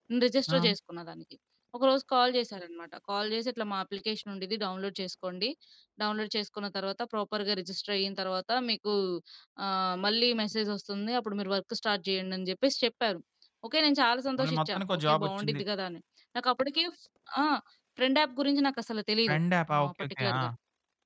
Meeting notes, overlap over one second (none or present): present